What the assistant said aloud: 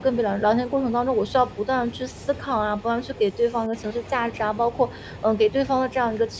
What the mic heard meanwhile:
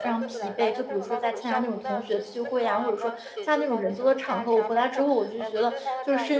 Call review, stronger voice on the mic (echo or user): user